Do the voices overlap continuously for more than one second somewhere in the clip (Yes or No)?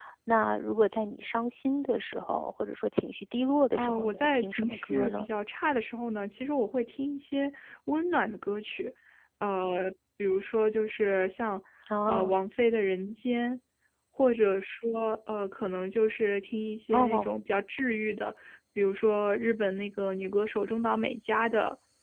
Yes